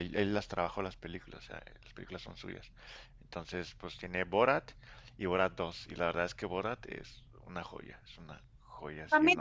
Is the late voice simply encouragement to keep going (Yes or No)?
No